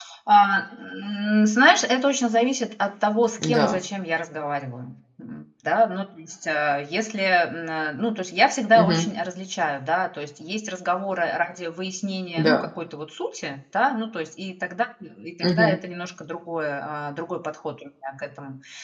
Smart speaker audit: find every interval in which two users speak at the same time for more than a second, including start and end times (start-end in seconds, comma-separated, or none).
none